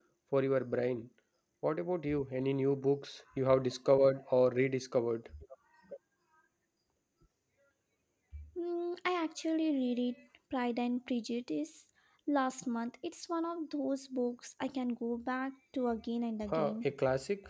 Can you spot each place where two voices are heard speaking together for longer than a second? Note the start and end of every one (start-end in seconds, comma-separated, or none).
none